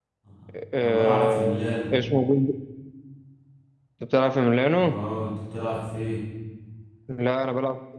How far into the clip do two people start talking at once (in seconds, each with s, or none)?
0.8 s